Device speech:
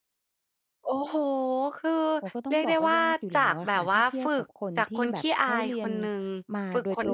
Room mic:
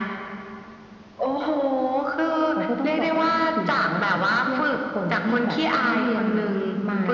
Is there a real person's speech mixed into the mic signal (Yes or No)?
No